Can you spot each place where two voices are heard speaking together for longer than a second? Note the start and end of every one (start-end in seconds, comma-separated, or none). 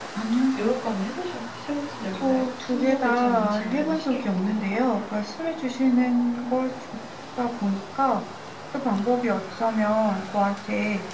2.2-4.2